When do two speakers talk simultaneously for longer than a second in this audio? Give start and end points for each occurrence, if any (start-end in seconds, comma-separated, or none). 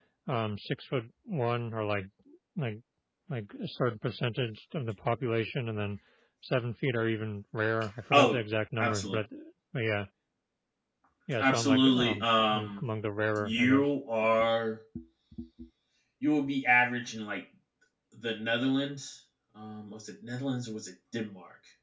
11.4-12.8